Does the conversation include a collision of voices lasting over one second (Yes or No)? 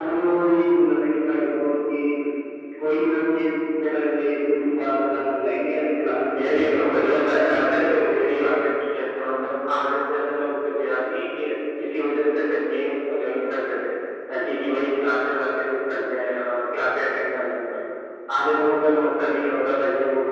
Yes